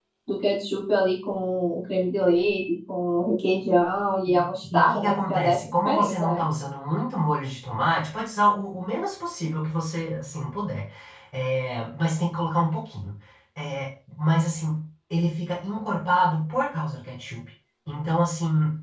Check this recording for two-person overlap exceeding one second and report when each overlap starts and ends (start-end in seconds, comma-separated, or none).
4.7-6.4